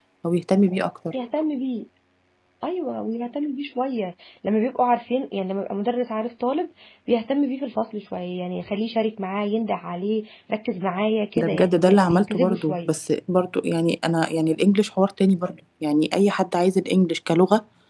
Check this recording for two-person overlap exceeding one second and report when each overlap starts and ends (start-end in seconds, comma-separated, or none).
11.4-12.9